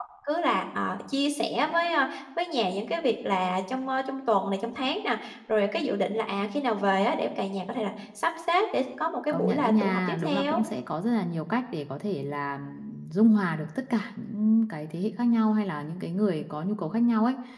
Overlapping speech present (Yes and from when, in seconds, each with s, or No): Yes, from 9.3 s